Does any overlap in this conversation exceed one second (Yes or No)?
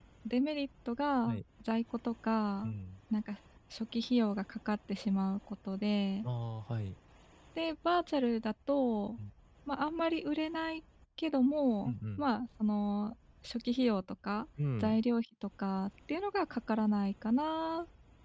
No